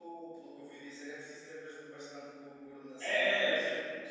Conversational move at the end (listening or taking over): taking over